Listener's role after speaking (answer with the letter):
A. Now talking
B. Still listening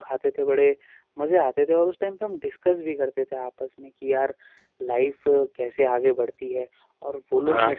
B